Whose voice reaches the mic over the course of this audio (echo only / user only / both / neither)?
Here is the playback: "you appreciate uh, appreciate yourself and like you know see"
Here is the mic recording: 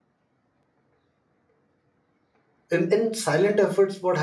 user only